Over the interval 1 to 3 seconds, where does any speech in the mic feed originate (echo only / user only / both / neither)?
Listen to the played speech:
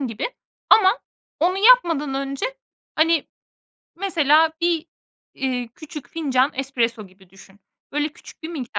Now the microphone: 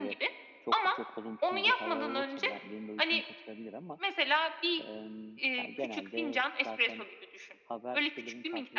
both